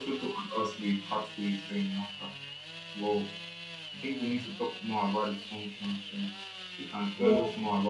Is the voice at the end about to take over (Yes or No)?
No